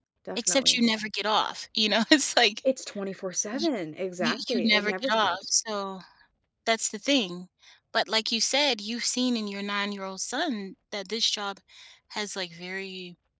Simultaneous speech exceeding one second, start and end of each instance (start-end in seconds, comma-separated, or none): 4.2-5.5